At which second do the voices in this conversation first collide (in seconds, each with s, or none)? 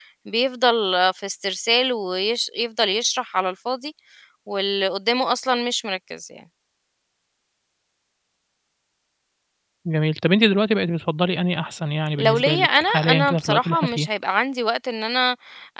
12.2 s